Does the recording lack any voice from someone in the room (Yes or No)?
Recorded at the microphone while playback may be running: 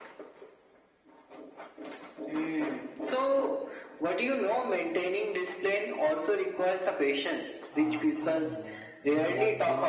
No